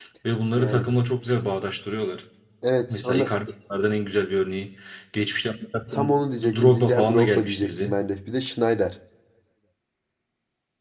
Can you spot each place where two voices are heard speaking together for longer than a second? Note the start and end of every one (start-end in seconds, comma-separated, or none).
5.9-8.0